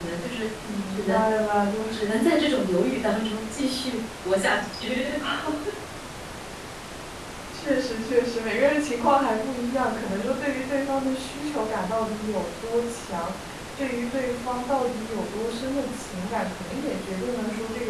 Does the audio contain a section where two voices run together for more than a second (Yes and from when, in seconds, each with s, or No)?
No